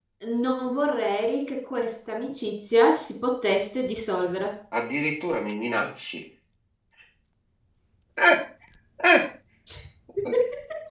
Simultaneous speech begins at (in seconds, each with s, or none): none